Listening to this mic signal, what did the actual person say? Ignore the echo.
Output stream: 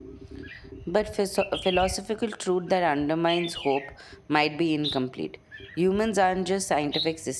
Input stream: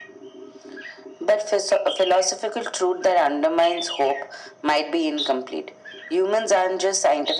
none

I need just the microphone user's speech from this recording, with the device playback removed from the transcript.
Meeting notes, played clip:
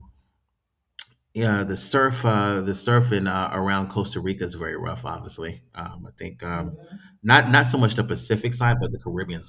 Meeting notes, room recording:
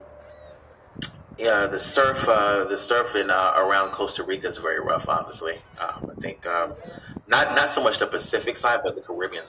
none

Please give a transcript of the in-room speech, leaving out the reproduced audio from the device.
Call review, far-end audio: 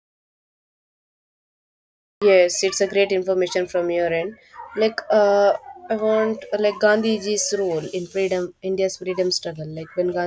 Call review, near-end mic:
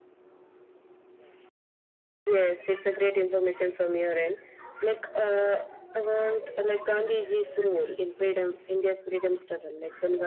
none

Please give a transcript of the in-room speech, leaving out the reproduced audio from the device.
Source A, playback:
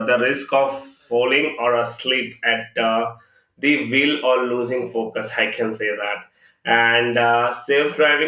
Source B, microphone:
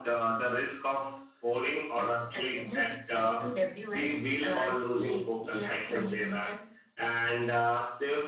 that that it just set to debut at uh, C, CS 2026.

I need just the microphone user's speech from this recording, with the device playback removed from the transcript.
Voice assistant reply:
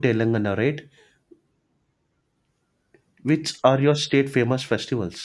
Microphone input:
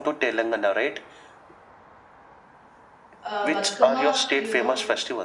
Uh, Batkama, you know,

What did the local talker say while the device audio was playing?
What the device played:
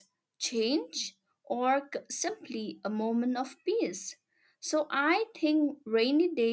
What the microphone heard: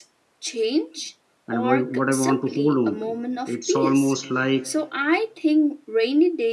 and why- what I want to hold on to. It's almost like

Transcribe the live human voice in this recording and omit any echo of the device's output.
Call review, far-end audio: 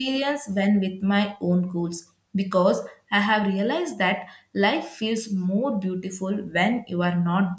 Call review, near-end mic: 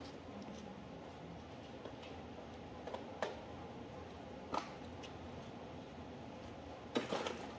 none

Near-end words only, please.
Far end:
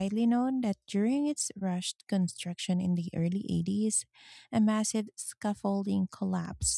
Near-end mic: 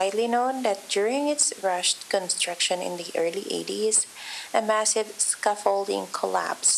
none

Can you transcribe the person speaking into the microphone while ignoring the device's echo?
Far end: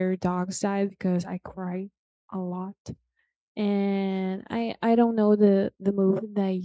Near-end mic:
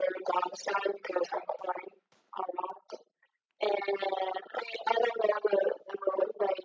none

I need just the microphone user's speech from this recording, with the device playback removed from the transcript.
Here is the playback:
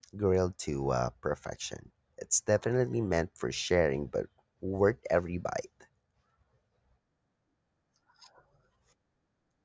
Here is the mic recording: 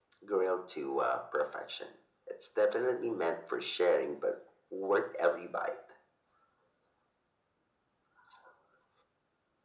none

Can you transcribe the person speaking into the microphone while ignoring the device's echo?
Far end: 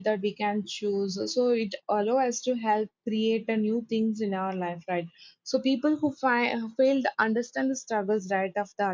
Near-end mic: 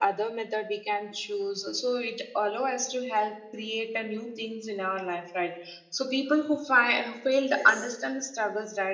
yes

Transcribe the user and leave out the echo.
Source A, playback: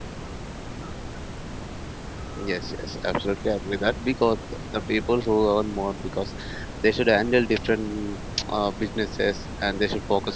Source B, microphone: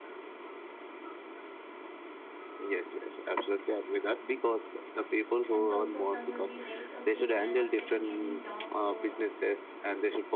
And also, some will be like, okay, we are not getting any job, so

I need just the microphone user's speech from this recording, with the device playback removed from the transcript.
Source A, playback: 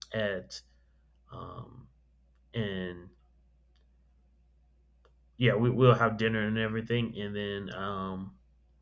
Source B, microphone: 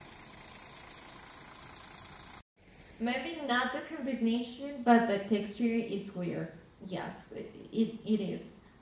maybe not the combination, but the texture it's weird. Yes, i- i- it it is.

